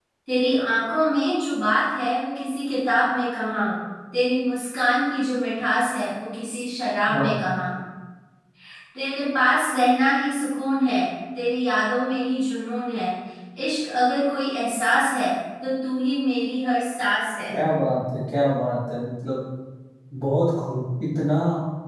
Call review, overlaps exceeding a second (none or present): none